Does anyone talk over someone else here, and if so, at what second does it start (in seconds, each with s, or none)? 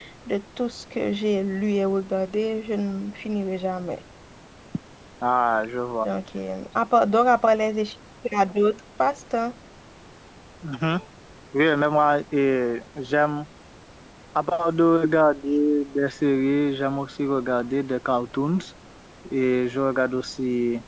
none